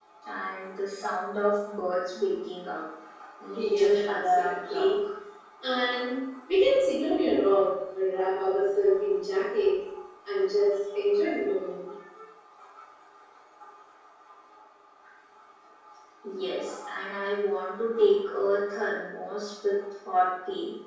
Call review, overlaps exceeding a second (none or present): present